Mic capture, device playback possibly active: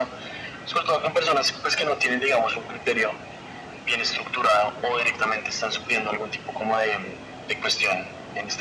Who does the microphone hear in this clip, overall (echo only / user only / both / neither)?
echo only